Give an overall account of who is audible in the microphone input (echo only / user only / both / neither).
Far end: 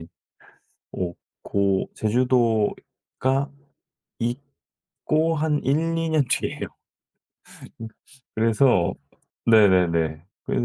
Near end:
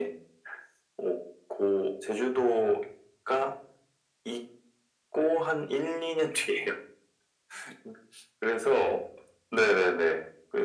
echo only